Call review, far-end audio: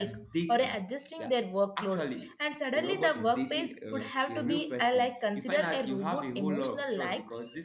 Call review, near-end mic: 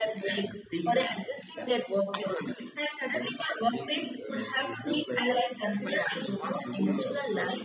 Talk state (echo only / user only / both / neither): echo only